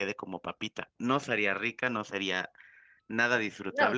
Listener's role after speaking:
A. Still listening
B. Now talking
A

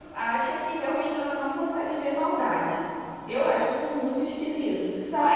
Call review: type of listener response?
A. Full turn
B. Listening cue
A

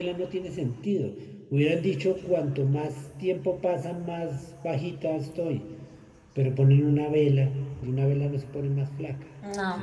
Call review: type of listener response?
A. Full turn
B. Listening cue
A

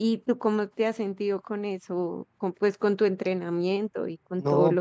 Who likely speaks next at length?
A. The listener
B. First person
A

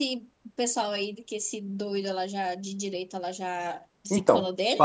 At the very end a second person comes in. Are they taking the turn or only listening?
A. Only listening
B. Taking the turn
B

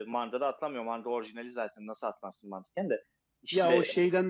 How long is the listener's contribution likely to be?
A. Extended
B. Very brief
A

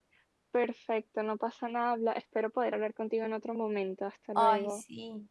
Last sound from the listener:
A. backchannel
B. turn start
B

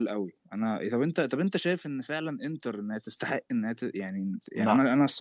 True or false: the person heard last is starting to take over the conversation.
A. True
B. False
B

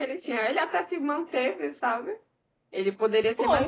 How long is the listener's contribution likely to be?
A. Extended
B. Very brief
B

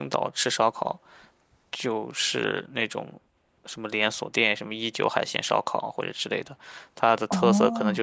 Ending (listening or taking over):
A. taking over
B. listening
A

